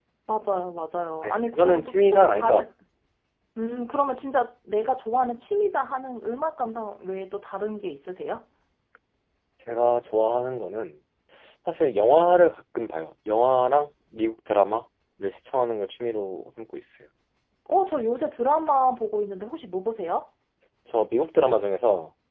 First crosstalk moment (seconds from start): 1 s

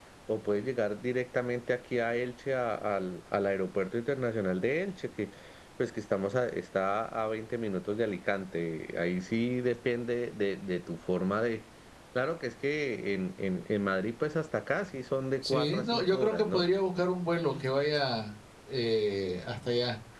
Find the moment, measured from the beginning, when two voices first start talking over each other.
15 s

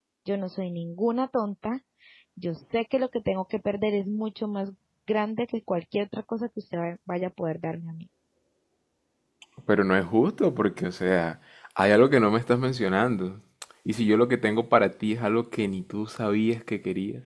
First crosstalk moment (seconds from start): none

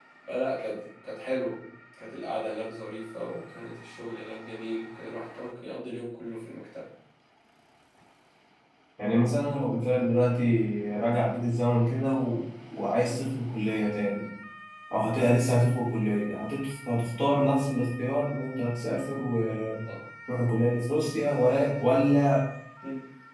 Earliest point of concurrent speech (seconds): none

